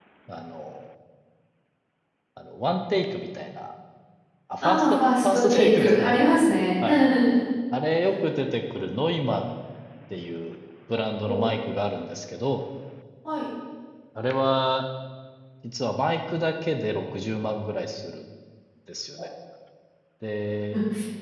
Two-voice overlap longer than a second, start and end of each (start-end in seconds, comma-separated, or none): 4.6-6.1